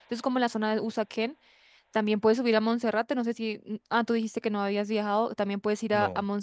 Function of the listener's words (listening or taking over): listening